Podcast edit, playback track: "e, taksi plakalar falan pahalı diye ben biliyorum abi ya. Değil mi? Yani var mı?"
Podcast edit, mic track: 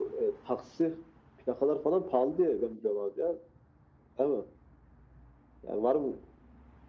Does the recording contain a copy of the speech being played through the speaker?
Yes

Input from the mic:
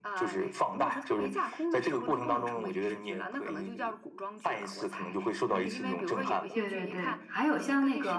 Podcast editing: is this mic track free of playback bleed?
No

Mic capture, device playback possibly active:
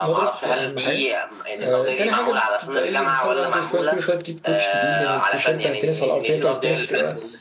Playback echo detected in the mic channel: Yes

